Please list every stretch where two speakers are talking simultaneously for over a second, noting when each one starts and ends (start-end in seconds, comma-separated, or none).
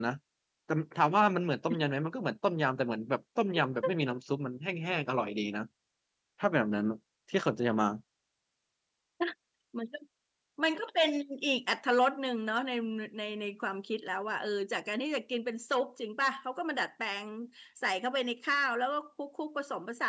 none